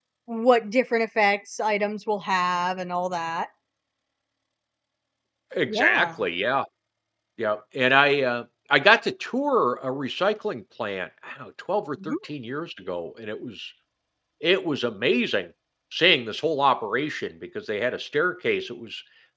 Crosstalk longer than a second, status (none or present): none